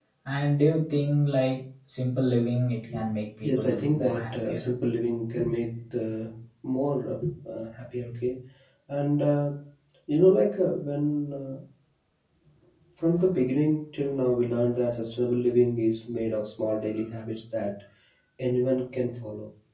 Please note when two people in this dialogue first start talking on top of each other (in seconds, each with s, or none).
3.4 s